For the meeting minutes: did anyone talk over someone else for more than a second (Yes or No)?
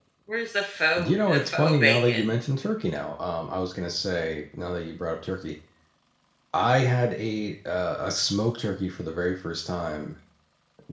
Yes